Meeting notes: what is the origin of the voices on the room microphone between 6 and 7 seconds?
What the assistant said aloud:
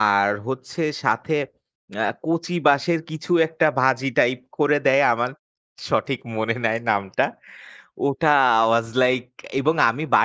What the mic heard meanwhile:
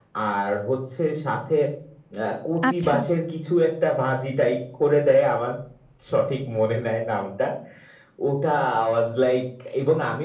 echo only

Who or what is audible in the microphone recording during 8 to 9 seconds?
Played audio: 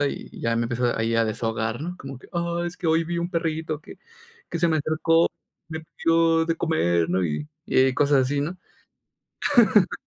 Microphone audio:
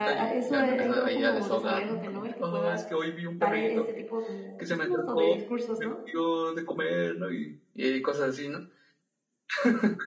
echo only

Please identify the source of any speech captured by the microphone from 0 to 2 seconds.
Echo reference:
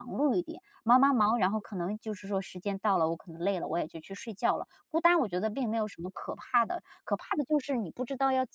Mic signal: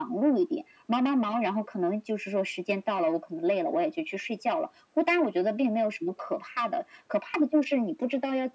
echo only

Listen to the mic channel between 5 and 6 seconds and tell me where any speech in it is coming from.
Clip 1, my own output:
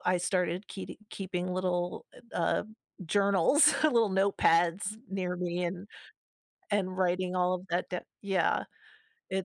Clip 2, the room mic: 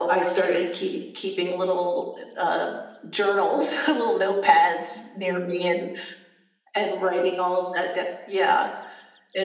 echo only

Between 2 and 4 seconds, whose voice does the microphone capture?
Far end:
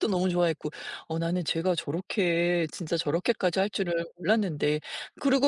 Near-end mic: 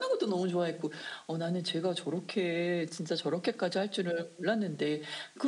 echo only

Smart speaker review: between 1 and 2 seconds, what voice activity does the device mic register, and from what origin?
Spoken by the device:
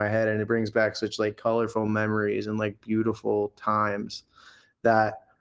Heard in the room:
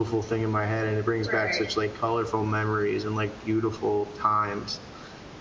both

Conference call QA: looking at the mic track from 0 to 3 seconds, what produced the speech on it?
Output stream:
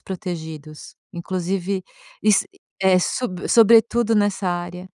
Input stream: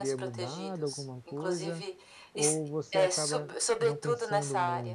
both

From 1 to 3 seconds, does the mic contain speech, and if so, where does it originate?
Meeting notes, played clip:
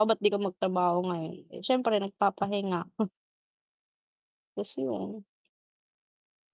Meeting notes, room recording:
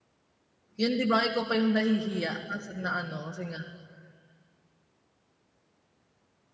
user only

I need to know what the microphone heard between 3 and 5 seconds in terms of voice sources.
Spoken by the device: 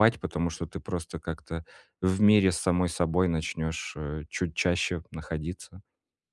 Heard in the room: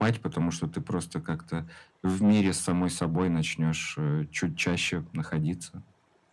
echo only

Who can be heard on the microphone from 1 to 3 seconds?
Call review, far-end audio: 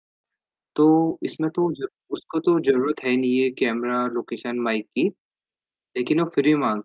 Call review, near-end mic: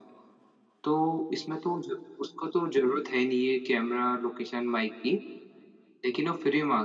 echo only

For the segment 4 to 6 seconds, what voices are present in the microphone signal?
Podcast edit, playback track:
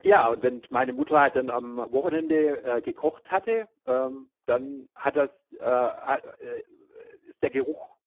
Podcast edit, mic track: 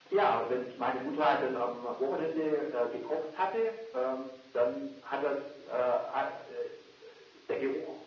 echo only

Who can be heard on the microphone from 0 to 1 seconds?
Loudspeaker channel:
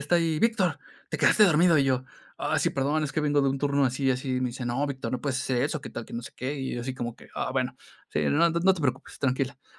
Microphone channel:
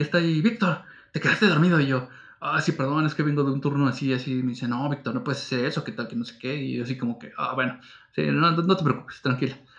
echo only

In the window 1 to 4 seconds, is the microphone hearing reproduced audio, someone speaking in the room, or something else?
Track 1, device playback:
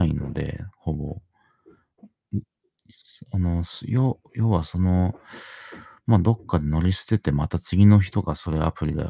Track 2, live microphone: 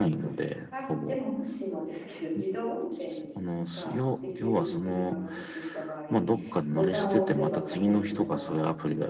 both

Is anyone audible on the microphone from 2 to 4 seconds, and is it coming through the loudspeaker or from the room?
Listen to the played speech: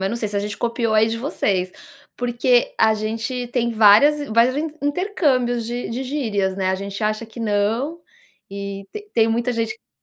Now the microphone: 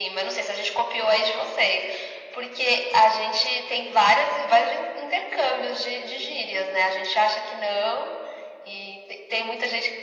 echo only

